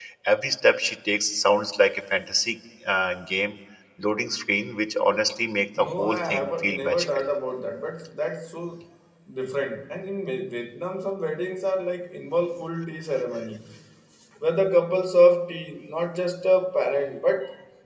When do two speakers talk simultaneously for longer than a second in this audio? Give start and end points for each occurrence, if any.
5.8-7.1

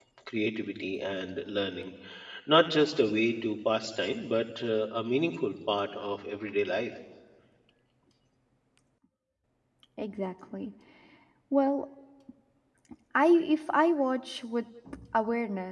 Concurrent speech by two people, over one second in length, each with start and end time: none

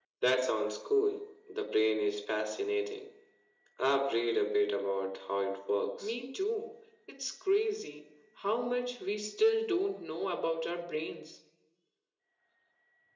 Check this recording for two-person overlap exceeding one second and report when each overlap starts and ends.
none

